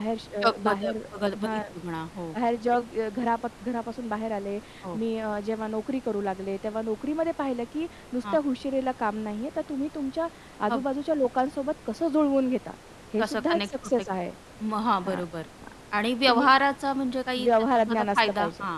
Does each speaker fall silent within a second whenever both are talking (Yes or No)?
No